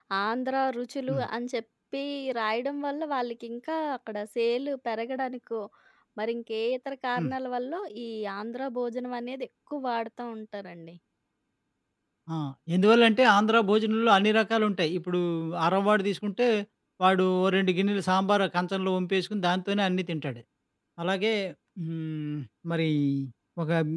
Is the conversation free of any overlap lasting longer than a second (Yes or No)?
Yes